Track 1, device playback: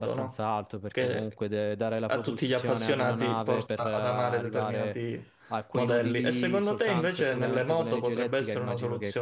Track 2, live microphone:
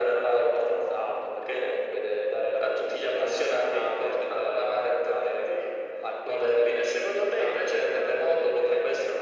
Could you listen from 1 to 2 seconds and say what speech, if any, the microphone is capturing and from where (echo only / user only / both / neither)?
echo only